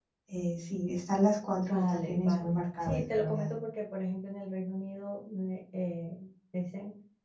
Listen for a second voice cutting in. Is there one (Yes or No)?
Yes